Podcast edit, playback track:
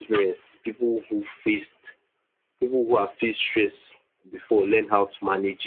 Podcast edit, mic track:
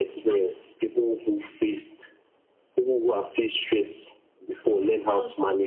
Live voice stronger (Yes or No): No